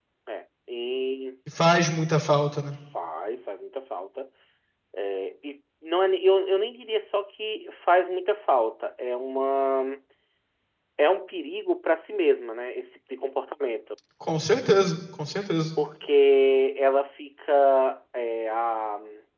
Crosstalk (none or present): none